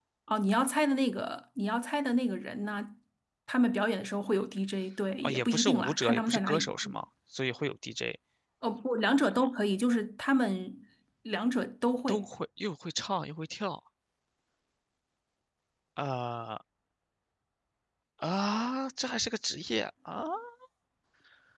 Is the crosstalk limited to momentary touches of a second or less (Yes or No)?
No